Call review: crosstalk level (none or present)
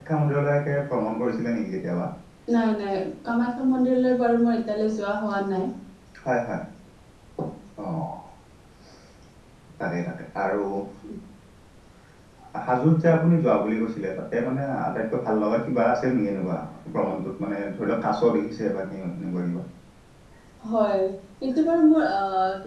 none